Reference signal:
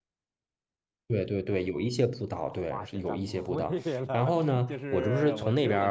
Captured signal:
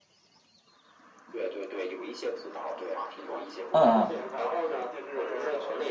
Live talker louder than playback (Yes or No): Yes